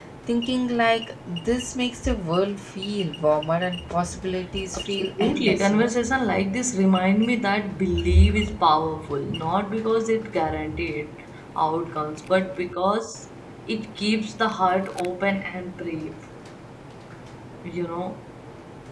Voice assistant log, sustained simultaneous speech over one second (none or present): present